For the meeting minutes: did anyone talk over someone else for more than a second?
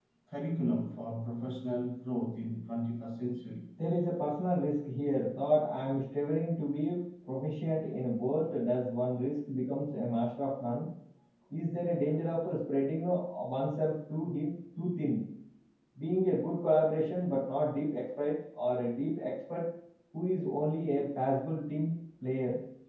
No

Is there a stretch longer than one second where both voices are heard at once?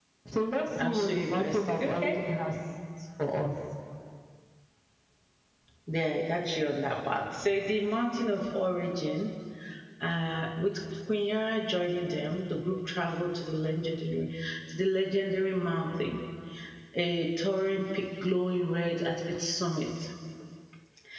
Yes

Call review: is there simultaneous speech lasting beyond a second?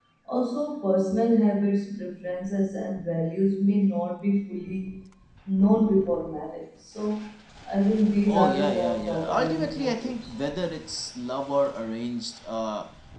Yes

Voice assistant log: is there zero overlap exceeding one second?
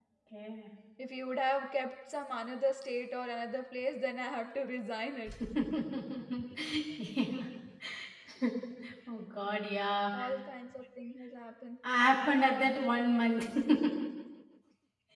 Yes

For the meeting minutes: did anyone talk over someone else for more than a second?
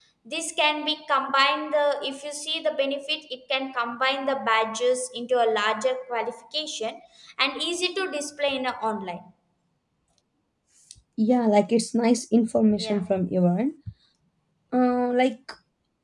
No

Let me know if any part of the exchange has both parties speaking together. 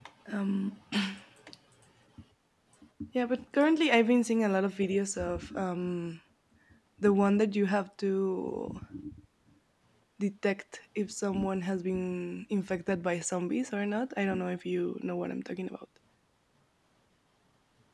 No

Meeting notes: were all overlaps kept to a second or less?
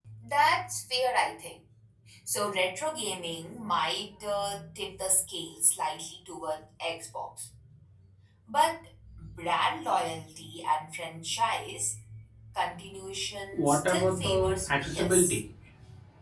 No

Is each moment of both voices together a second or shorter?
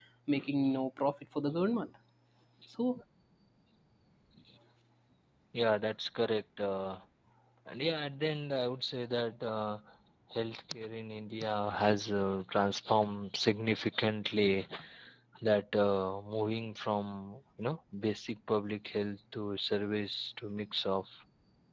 Yes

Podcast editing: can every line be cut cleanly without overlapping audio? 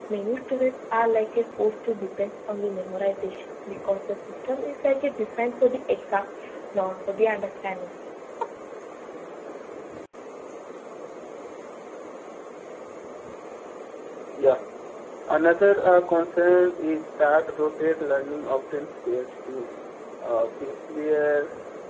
Yes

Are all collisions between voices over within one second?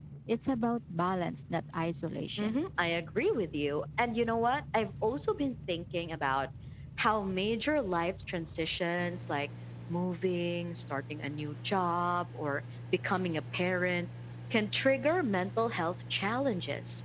Yes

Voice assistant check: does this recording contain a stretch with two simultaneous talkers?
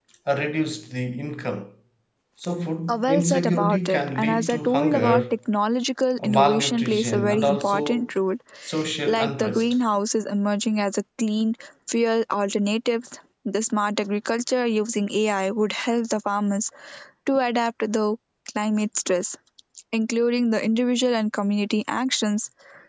Yes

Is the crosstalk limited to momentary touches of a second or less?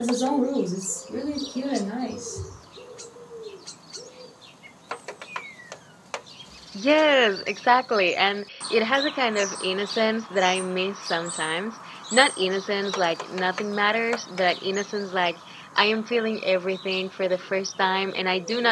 Yes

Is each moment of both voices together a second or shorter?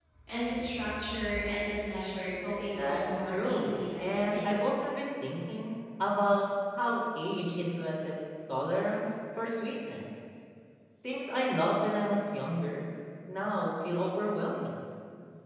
No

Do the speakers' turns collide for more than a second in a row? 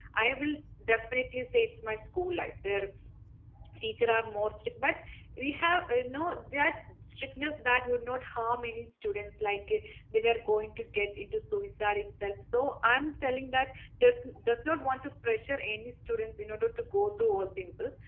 No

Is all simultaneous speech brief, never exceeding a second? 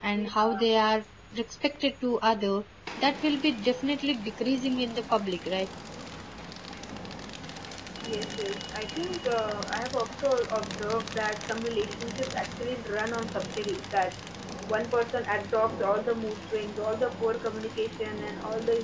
Yes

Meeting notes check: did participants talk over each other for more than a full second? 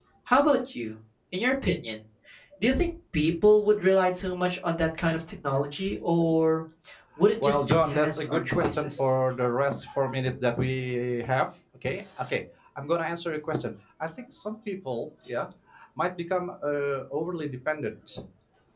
Yes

